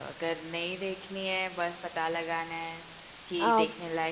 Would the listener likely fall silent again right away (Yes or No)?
Yes